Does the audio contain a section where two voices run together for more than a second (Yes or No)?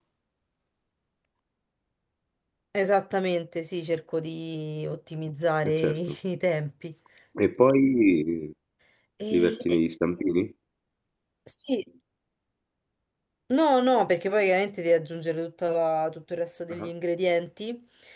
No